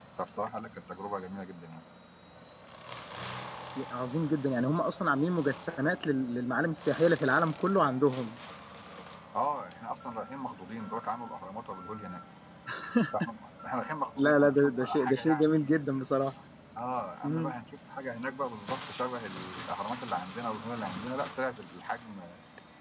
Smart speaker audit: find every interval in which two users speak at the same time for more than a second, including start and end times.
14.2-15.5

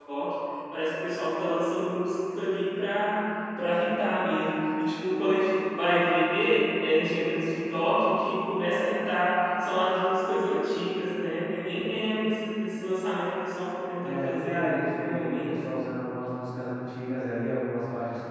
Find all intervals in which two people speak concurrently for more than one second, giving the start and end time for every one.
14.0-15.6

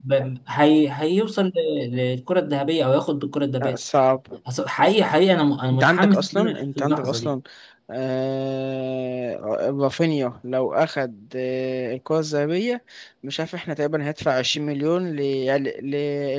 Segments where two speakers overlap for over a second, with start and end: 5.7-7.3

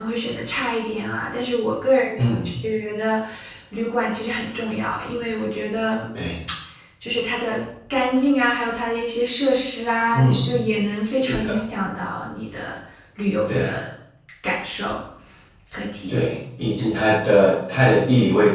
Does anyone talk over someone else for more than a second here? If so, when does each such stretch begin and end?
none

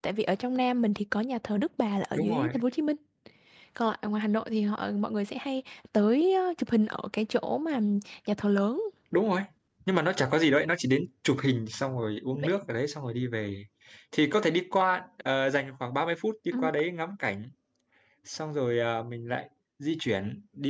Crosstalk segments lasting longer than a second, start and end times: none

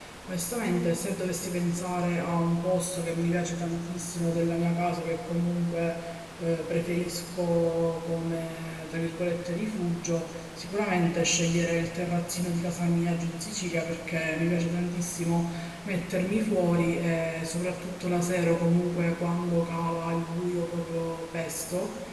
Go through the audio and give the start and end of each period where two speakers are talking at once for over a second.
none

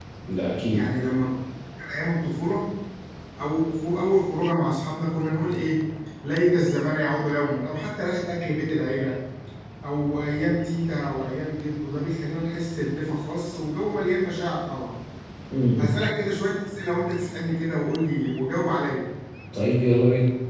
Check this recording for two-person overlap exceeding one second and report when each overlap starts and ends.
none

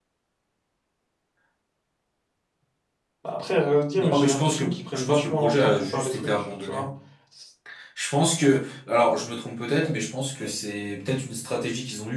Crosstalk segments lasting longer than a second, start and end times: 4.0-6.8

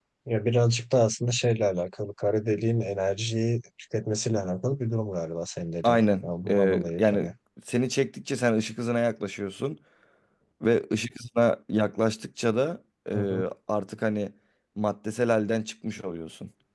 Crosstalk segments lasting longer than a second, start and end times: 5.8-7.3

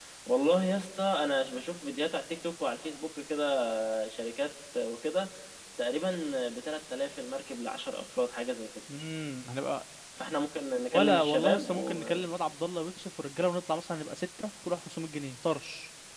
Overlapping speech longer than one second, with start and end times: 10.9-12.3

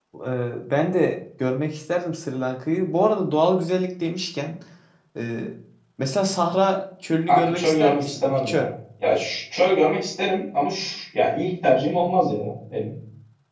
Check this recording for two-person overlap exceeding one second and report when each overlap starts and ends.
7.3-8.7

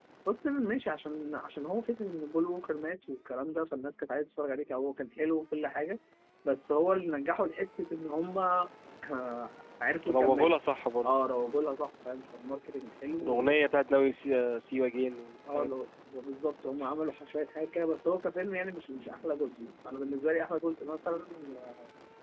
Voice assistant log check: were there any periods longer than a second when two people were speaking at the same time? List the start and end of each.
none

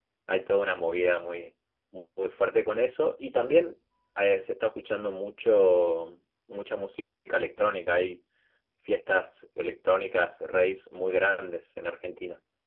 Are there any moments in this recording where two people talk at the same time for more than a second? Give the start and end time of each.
none

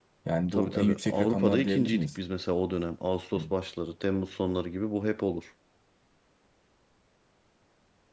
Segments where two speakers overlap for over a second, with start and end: 0.5-2.2

